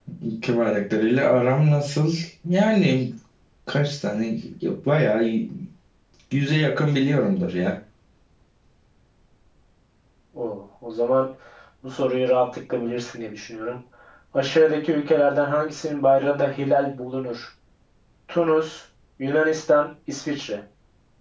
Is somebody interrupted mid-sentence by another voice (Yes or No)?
No